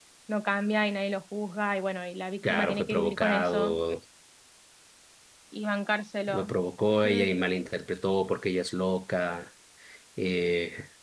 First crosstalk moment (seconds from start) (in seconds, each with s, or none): 2.5 s